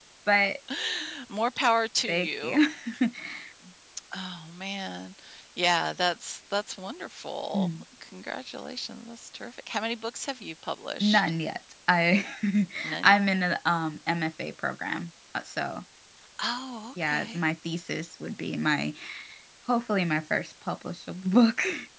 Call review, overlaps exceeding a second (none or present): none